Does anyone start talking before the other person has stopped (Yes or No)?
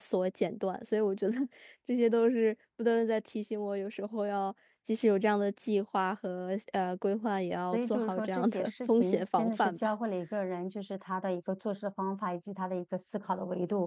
Yes